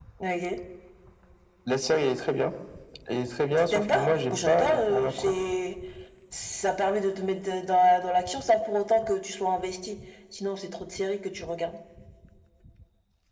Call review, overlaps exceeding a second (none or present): present